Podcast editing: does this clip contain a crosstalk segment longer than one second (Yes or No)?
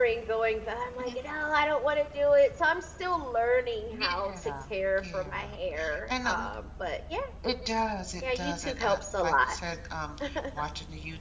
Yes